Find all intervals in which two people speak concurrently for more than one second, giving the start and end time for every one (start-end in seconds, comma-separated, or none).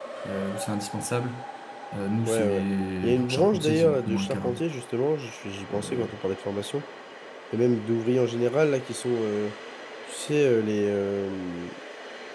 3.0-4.6